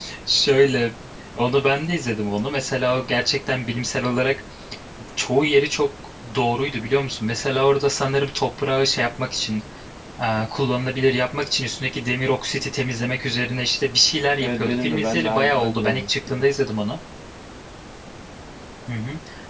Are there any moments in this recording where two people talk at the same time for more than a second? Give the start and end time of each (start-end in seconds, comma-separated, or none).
14.4-16.5